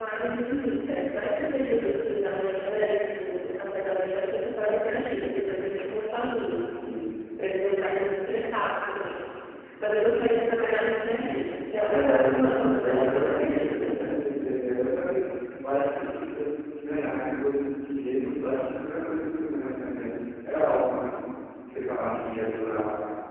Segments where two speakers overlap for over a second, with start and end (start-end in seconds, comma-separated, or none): 11.9-14.0